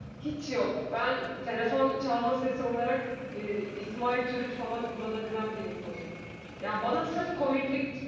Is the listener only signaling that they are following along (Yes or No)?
Yes